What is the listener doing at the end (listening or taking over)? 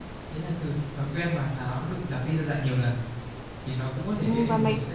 taking over